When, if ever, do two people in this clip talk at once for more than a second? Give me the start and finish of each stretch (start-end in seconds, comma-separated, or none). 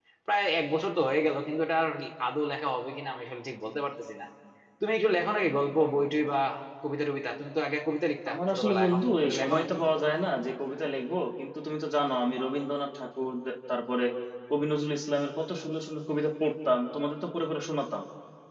8.3-9.8